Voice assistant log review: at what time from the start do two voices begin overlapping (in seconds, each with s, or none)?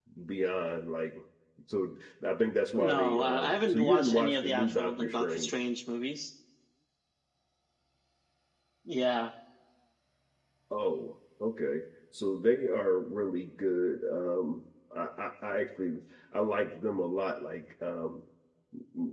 2.8 s